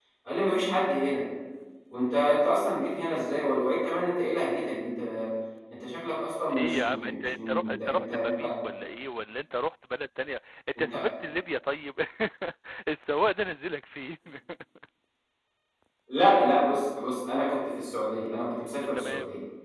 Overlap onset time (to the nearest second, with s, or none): 6 s